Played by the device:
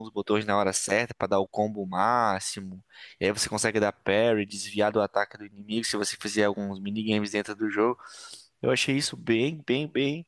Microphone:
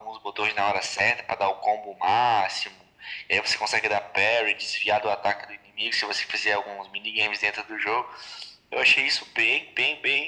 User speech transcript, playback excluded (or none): none